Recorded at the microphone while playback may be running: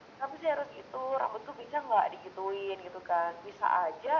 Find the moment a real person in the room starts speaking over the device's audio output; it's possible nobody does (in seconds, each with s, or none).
none